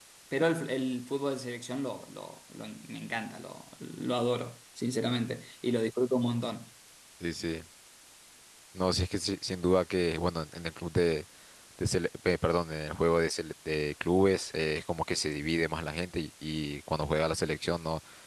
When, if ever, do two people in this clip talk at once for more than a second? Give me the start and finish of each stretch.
none

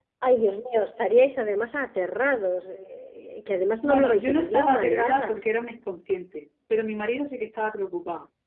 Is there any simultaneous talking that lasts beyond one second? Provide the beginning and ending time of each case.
3.8-5.4

